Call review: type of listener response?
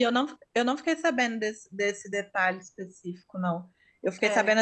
listening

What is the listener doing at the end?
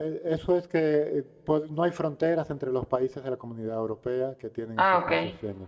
listening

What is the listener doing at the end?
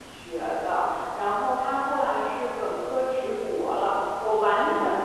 listening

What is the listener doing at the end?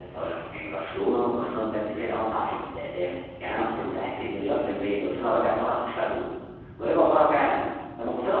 listening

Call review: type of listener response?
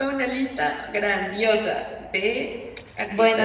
taking over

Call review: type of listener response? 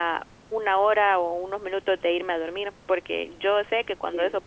listening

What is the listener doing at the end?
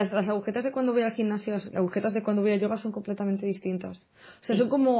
listening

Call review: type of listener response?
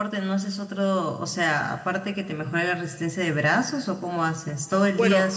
taking over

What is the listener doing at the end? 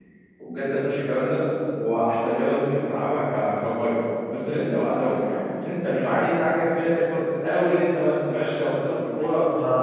taking over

